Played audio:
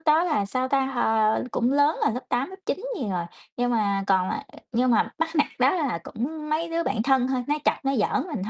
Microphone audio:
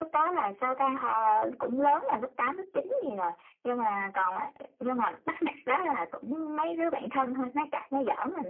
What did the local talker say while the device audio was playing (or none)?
none